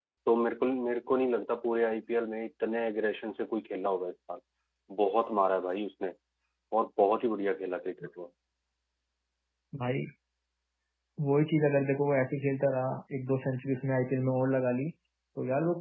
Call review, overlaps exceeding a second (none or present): none